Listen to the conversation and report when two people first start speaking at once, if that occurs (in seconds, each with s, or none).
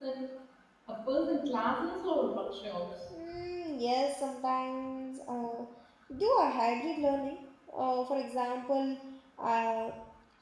none